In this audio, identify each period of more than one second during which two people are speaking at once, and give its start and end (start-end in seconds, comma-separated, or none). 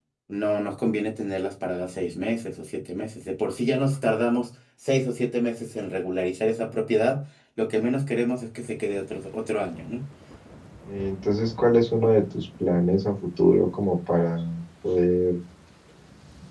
none